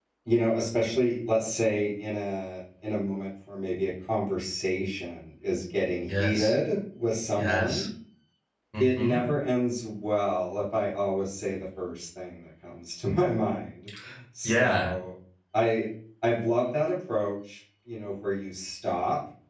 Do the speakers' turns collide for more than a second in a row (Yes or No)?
No